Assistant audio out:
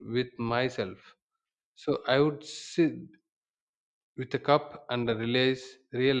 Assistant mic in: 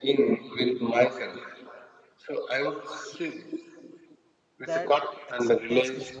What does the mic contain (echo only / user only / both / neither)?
both